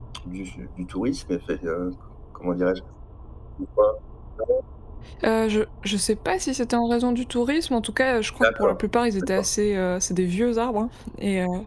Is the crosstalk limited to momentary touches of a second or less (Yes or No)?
Yes